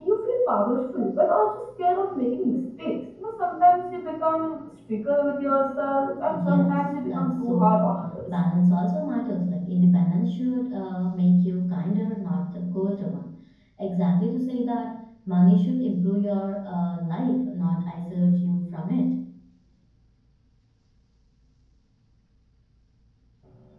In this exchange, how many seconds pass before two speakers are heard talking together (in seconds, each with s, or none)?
6.2 s